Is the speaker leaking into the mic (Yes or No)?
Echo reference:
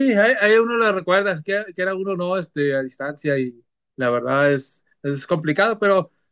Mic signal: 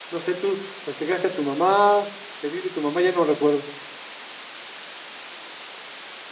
No